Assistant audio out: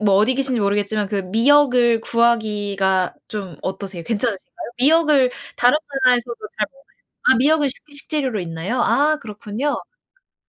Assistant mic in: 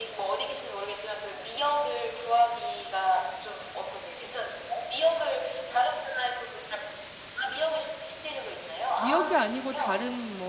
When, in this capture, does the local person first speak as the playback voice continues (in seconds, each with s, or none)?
9.0 s